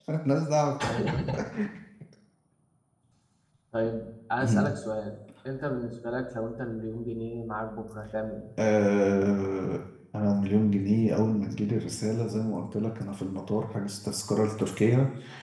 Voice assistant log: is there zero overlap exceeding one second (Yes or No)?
Yes